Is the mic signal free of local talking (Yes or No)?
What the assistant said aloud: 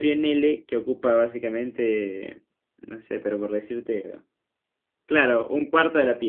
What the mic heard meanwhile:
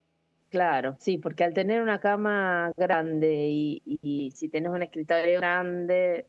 No